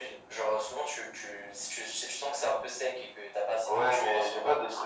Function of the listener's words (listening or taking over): taking over